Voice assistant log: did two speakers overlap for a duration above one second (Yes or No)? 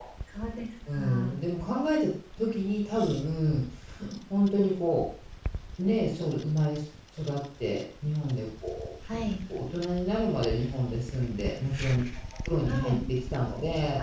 No